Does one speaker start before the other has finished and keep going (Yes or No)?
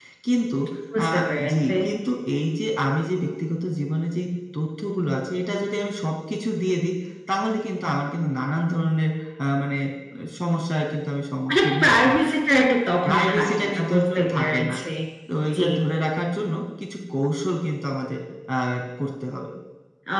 Yes